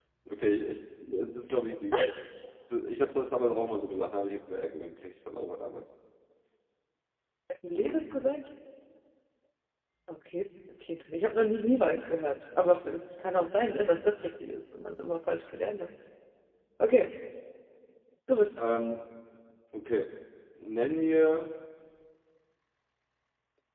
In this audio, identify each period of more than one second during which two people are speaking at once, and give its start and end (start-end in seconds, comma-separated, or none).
none